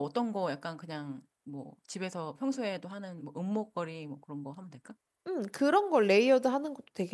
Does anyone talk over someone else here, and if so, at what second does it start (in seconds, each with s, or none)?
none